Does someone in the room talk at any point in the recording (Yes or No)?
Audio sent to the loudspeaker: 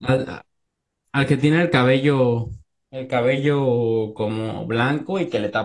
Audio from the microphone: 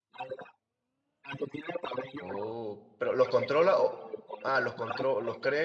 Yes